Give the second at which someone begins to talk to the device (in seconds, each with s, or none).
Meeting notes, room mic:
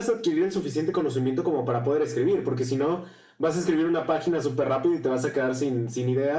none